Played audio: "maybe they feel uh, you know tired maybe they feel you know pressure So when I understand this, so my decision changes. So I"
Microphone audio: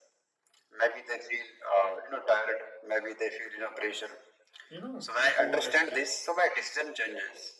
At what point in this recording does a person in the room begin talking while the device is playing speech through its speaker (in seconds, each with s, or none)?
4.7 s